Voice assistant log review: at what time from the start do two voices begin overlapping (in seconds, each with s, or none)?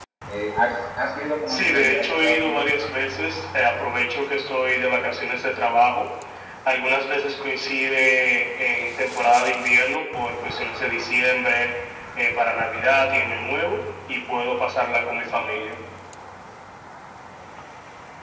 1.5 s